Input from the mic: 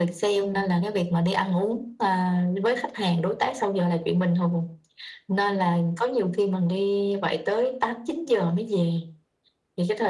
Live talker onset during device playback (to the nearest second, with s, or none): 0 s